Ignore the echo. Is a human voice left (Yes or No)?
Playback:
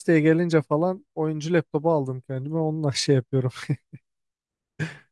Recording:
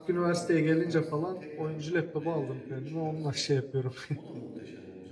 Yes